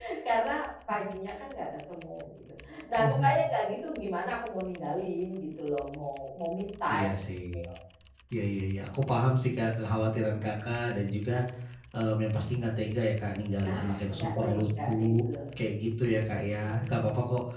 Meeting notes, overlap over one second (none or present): present